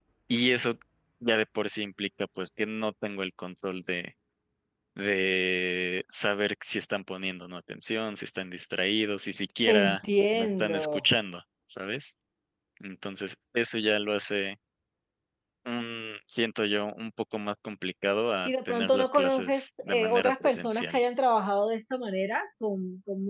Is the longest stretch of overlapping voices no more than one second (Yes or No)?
No